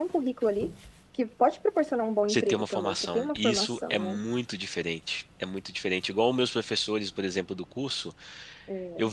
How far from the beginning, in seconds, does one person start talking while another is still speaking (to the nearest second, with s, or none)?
2 s